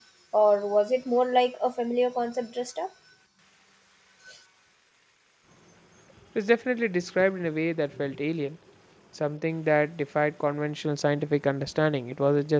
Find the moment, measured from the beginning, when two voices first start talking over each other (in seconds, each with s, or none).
none